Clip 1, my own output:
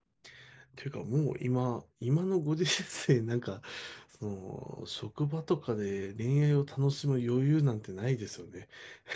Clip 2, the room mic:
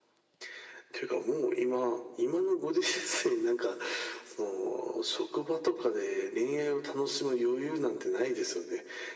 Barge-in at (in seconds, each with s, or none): none